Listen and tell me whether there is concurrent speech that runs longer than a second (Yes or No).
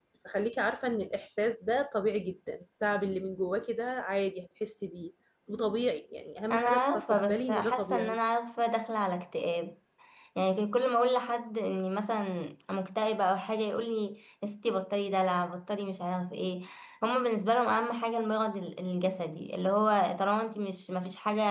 Yes